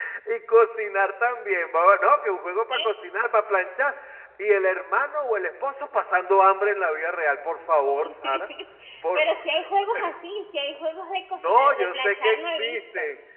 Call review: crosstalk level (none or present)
present